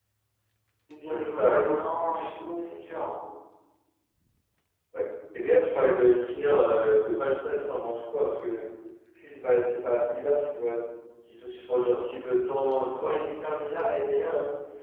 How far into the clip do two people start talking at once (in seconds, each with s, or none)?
1.1 s